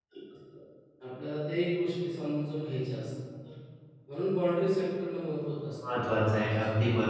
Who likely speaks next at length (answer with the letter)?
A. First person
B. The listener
B